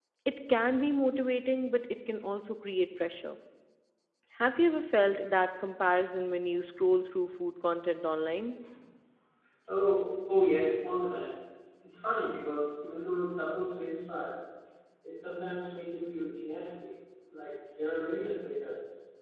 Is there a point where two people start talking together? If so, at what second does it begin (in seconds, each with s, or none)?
none